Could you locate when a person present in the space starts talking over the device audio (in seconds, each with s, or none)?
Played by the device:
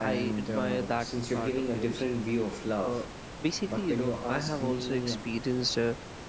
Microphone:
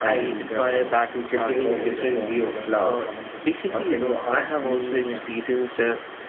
1.5 s